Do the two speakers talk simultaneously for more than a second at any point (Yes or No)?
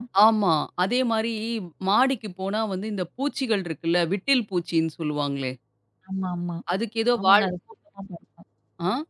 No